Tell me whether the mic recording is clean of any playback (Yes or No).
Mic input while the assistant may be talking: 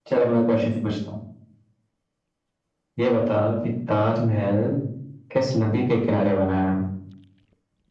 No